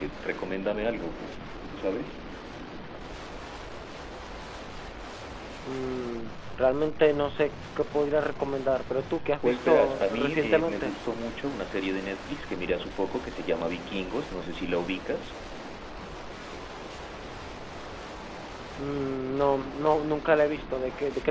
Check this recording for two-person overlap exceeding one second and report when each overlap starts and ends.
9.4-10.9

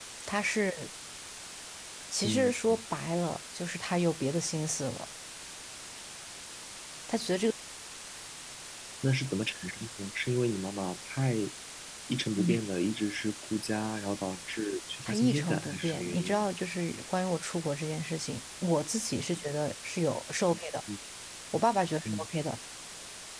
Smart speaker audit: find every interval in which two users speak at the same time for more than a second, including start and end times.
15.0-16.4

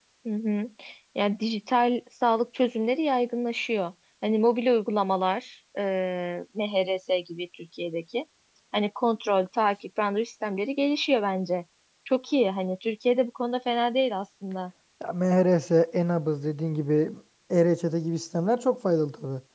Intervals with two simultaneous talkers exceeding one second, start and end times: none

